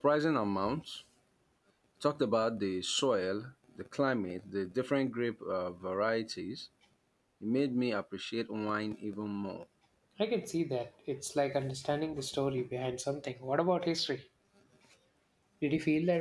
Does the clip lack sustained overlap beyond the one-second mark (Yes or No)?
Yes